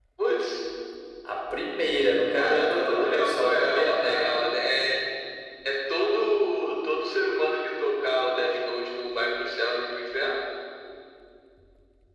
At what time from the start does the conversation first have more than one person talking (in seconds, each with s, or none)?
2.4 s